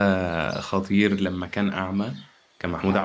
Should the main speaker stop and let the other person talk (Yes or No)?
No